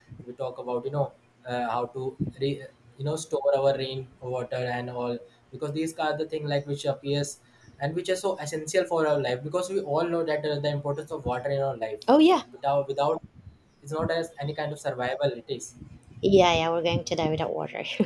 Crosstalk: none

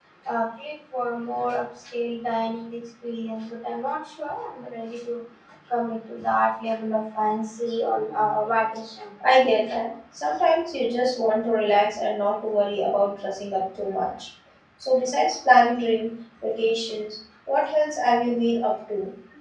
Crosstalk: none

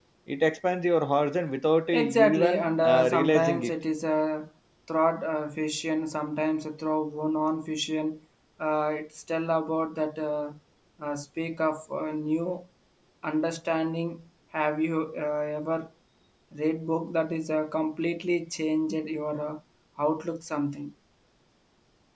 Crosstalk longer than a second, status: present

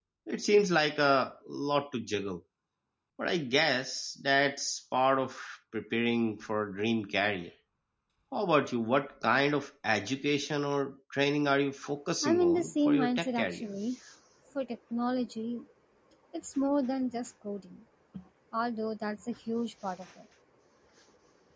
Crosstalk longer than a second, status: present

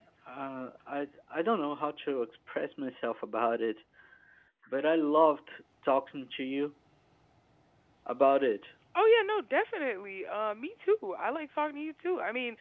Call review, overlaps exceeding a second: none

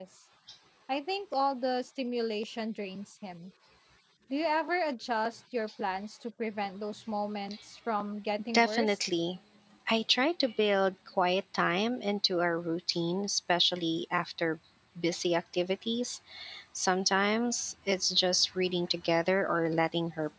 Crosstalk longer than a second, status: none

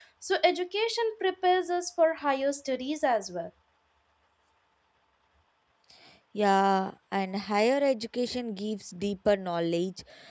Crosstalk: none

